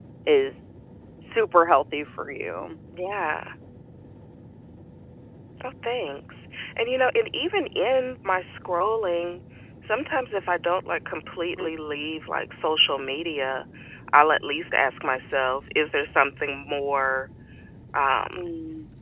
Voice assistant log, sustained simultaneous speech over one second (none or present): none